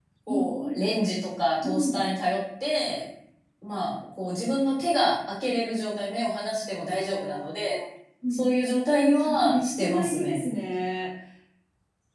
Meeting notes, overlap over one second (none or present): present